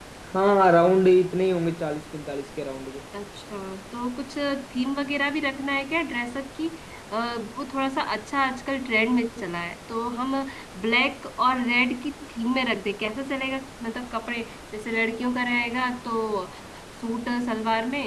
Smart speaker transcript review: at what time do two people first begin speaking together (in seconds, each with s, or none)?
none